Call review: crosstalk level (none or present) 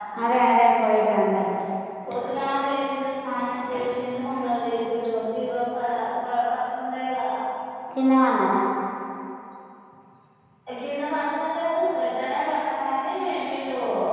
none